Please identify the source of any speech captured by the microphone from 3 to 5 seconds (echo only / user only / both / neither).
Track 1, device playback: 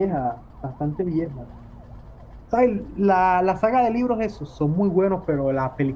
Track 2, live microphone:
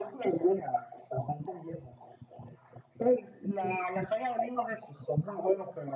echo only